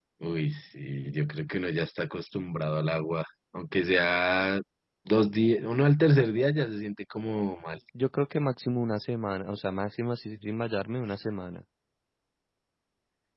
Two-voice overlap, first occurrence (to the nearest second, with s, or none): none